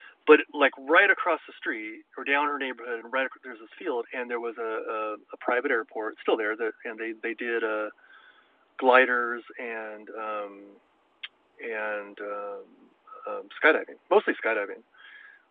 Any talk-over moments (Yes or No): No